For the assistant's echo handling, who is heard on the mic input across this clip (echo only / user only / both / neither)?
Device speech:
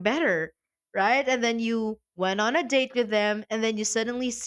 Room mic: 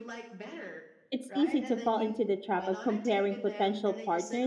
both